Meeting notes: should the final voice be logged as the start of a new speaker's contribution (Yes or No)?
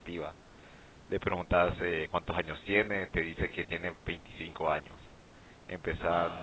No